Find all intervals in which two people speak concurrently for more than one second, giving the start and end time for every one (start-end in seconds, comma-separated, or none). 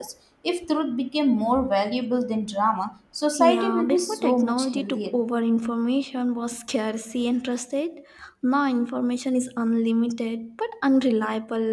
3.4-5.2